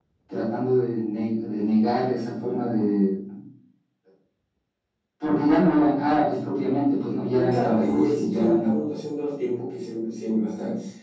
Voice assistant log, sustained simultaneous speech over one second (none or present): present